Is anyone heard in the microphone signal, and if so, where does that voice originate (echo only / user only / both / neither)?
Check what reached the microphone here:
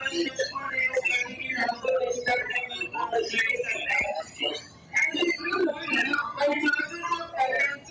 echo only